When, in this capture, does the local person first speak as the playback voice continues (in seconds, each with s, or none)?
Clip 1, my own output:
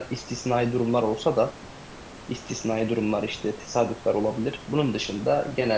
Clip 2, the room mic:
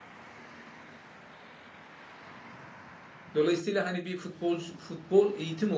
3.4 s